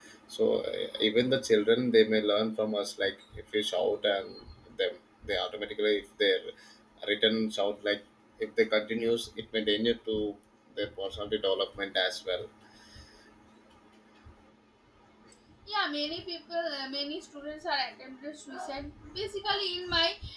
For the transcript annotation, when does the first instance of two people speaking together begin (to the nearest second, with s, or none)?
none